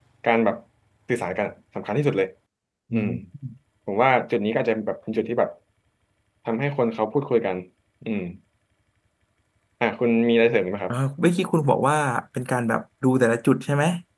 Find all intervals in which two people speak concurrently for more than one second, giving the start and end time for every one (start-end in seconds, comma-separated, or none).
none